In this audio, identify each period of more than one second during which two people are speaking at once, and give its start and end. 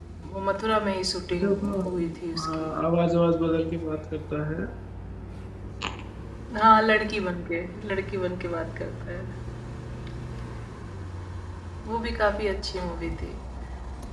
1.3-2.7

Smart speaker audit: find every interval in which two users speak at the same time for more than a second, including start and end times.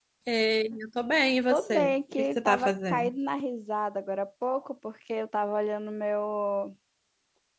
1.5-3.1

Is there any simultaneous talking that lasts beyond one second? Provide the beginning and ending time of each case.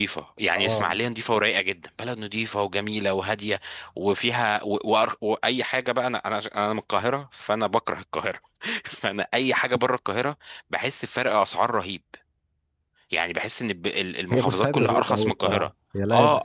14.3-15.7

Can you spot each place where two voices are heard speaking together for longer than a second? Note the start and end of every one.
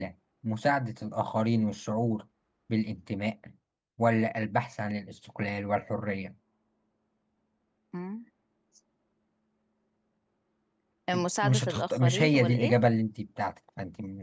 11.4-12.7

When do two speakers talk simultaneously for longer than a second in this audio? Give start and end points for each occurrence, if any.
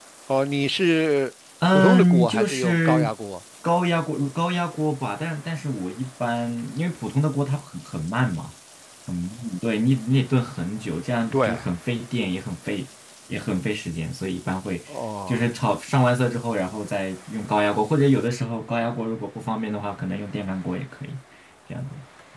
1.7-3.1

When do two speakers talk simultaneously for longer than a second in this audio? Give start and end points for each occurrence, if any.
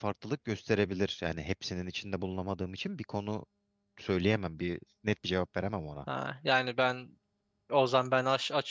none

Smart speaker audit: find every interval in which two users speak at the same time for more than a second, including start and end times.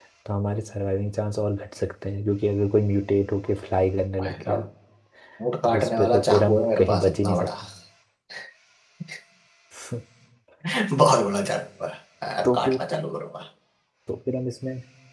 5.6-7.5

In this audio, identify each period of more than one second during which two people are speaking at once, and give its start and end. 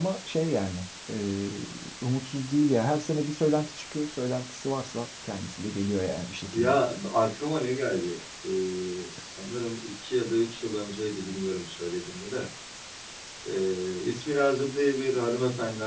none

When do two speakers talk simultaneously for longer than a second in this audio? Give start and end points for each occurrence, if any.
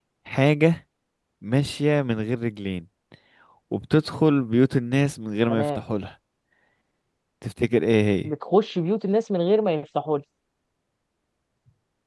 none

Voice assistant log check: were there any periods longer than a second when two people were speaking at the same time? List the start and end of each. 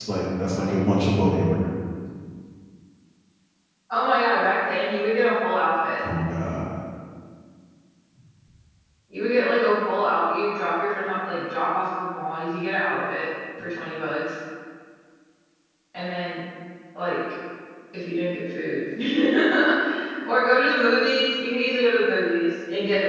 none

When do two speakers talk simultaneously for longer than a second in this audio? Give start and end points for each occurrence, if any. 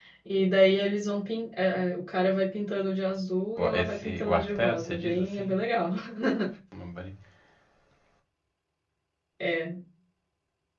3.6-5.5

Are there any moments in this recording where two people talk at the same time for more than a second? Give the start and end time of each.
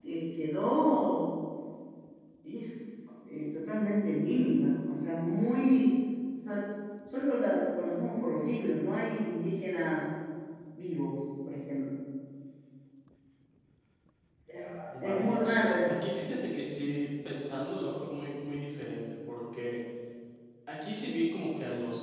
none

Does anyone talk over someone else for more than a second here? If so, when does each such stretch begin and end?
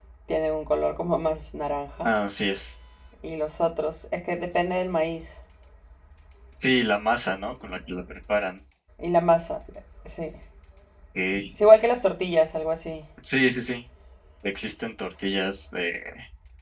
none

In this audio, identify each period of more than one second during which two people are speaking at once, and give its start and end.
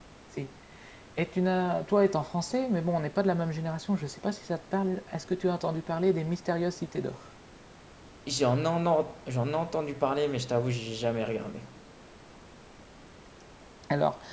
none

